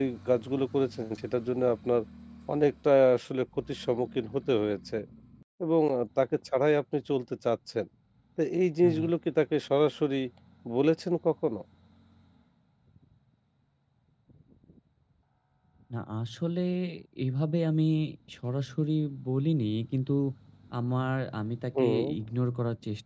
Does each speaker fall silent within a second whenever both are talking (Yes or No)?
Yes